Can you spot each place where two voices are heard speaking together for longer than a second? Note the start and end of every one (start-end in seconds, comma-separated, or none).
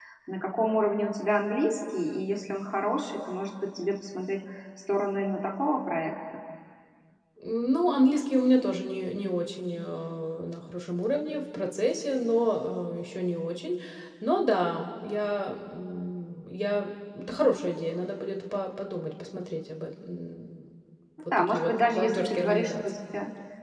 21.5-23.0